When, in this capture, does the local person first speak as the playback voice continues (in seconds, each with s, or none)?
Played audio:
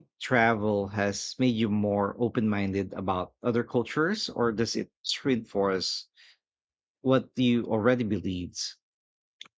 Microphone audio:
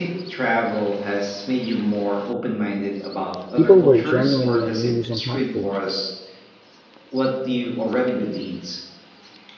3.6 s